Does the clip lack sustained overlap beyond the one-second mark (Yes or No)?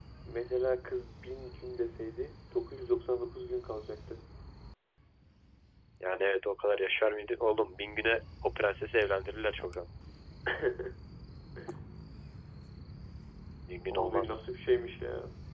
Yes